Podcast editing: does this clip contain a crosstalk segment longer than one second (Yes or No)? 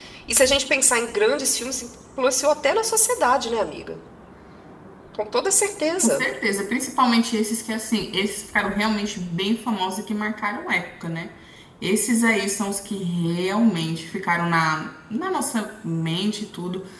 No